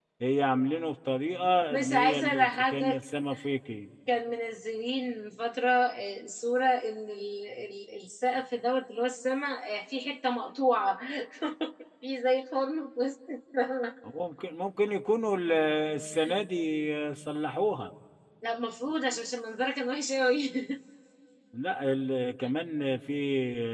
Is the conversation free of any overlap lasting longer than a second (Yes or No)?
No